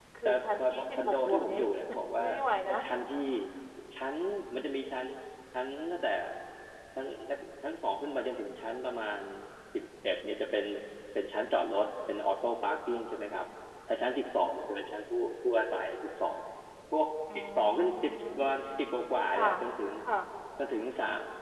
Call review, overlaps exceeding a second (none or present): present